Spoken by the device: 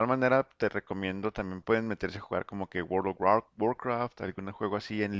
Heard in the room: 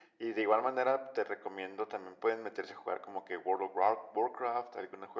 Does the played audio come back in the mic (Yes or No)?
Yes